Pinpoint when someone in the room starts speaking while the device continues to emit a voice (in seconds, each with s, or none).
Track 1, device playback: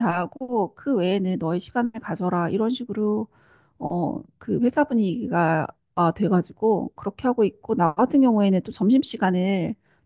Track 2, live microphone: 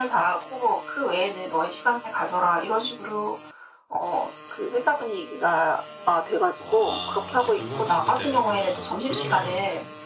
6.6 s